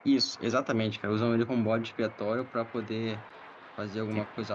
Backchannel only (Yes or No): Yes